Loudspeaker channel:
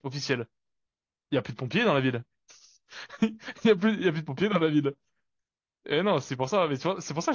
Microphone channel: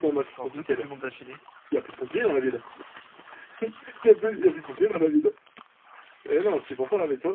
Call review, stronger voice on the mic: echo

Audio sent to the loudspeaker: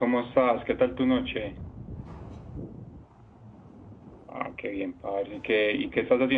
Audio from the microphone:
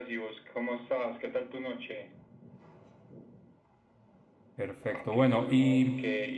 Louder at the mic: user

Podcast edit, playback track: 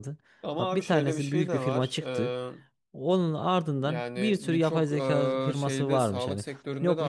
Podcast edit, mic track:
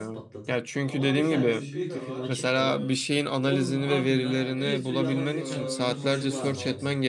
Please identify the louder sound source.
user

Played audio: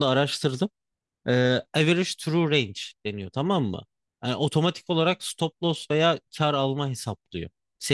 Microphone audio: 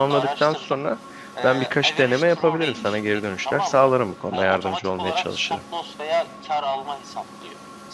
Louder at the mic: user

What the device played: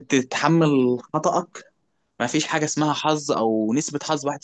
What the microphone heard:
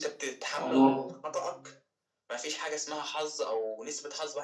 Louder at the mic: user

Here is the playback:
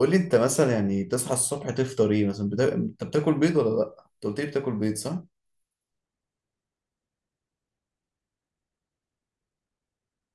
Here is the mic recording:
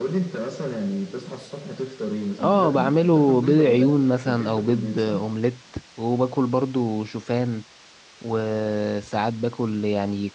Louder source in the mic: user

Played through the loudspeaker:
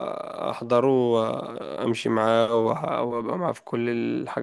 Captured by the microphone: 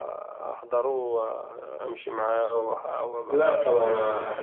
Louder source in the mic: user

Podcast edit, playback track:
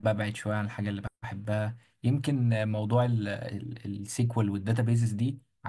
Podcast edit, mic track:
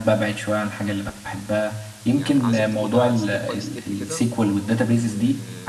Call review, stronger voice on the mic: echo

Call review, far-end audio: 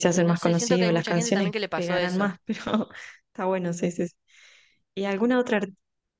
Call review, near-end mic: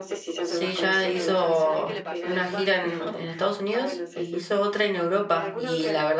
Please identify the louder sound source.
user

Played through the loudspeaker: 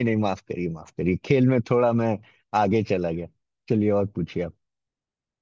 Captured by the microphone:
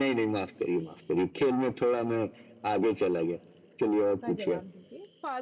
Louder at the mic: echo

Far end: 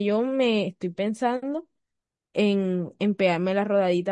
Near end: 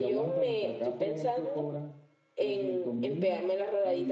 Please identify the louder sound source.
echo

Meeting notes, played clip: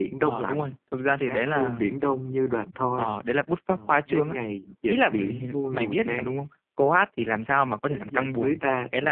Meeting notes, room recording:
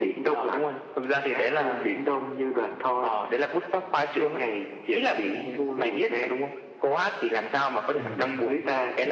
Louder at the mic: echo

